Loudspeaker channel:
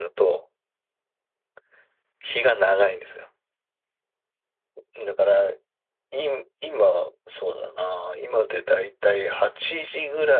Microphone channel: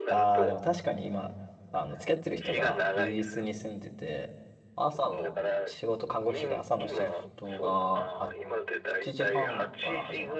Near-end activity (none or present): present